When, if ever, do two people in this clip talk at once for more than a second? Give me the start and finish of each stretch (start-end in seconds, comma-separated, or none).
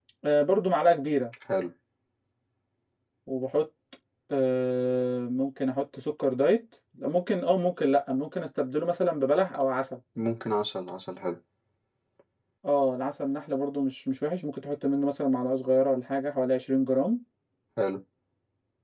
none